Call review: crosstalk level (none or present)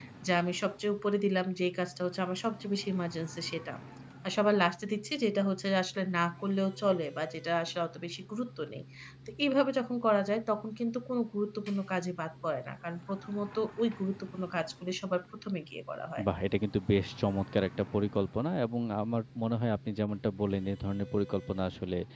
none